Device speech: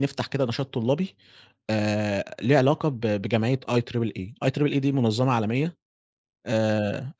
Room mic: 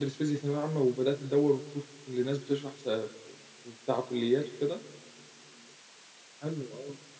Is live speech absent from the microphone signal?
No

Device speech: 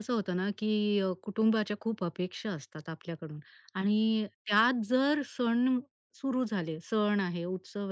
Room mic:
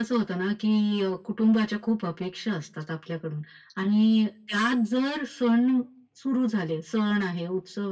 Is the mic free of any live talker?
Yes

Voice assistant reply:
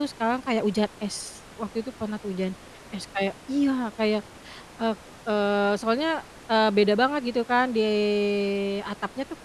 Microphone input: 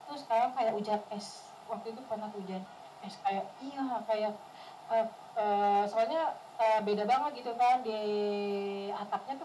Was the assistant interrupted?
No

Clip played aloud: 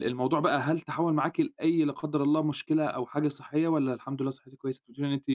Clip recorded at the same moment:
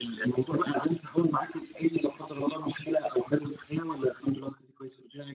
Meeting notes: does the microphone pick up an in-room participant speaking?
No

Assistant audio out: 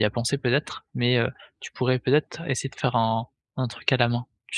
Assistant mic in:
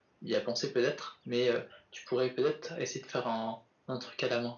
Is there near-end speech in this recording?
No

